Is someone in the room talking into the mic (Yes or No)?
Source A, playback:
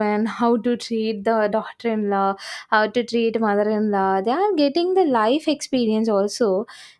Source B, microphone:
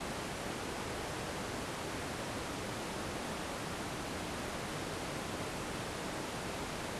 No